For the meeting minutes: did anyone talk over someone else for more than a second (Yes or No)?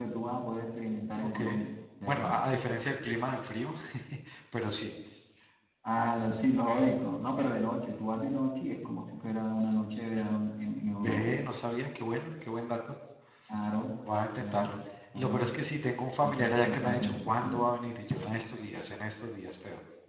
Yes